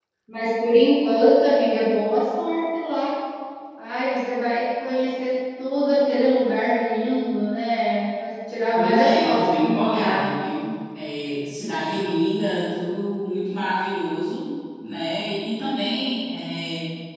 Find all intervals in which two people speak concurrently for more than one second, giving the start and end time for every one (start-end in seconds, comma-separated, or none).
8.7-10.2